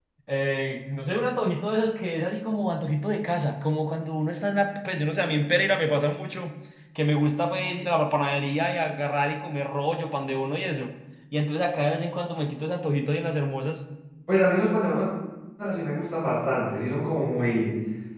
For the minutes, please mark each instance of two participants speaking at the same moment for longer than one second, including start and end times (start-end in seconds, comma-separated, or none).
none